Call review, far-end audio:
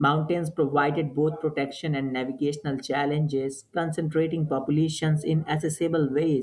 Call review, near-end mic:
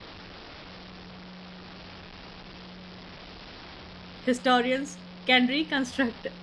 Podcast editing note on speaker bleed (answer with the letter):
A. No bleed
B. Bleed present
A